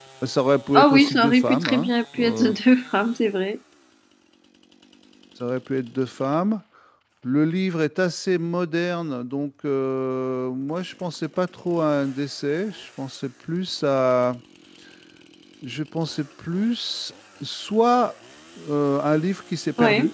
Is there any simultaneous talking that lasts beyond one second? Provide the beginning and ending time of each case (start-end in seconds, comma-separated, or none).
0.7-2.5